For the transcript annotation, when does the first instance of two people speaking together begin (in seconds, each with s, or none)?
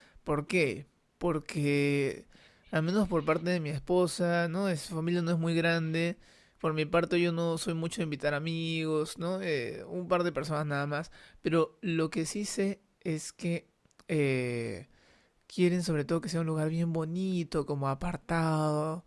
none